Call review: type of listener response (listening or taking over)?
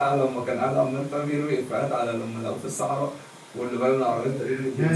taking over